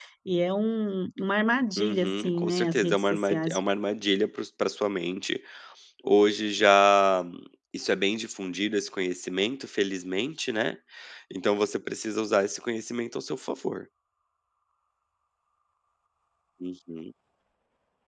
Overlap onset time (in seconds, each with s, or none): 1.8 s